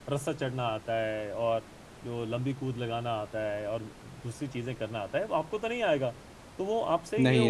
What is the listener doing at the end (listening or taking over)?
listening